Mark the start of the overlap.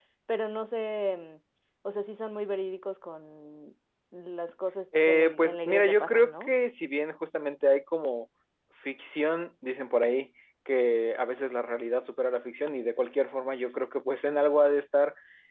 4.9 s

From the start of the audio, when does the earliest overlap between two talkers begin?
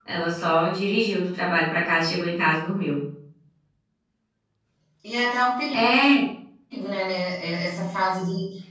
none

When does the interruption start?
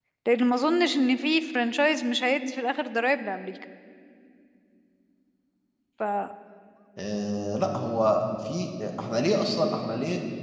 none

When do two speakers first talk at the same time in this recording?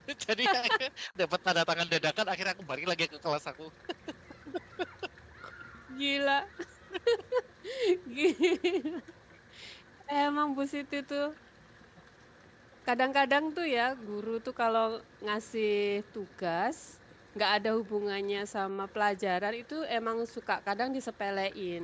none

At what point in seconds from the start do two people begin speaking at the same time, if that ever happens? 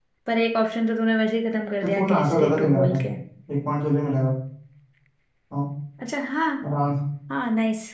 1.8 s

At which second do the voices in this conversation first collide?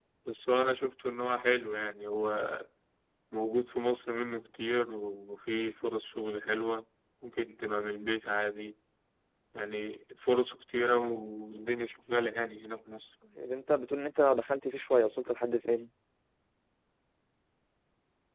none

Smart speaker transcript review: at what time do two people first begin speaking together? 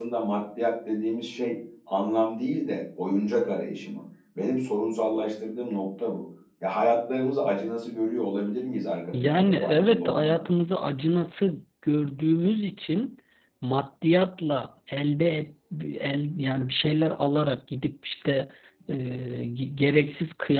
9.1 s

